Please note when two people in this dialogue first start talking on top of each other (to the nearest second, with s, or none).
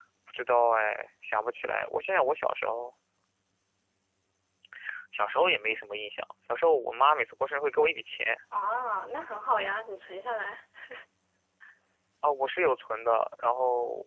none